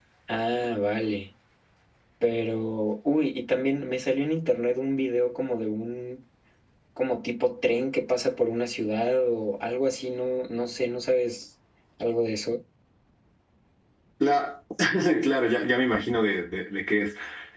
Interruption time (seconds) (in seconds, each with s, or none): none